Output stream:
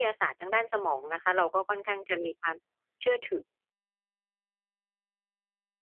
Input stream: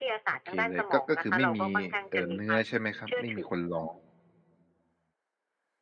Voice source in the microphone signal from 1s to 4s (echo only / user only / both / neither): both